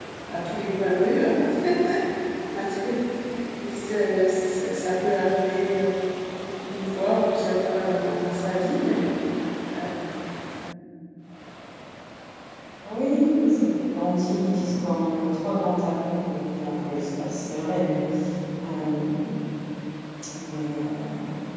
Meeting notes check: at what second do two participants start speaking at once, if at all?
none

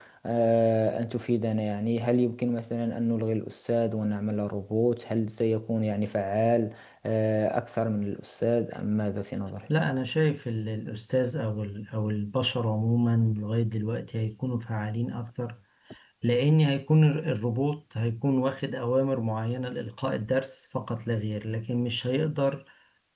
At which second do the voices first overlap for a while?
none

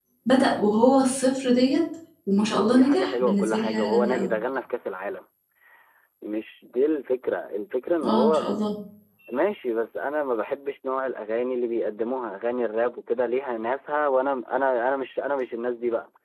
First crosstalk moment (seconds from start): 3 s

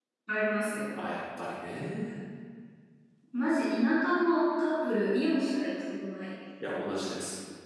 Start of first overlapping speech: none

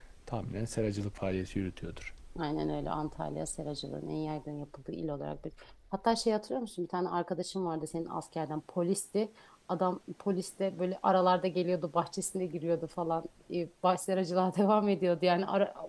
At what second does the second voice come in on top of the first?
none

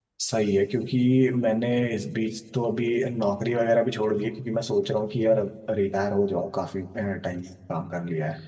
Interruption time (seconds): none

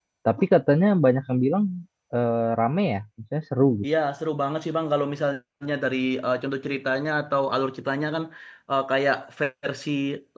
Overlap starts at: none

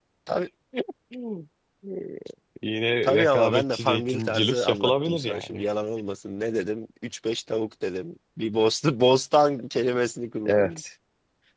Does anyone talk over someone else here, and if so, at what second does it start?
3 s

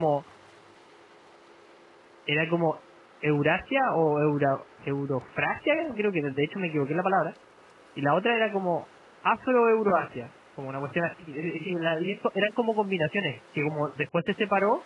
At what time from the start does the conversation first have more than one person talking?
none

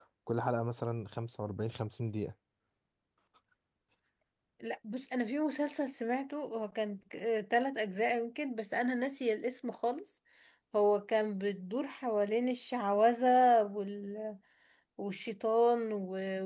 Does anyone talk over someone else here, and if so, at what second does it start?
none

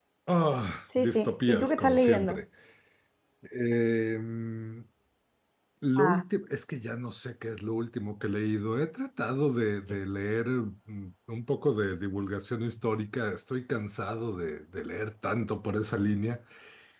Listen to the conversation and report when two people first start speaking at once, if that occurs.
1 s

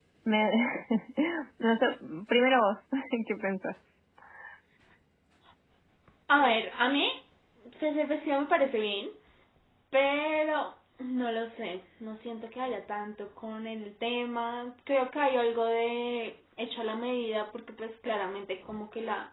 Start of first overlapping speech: none

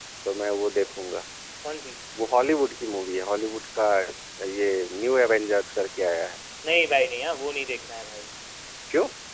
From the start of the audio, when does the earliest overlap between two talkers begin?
none

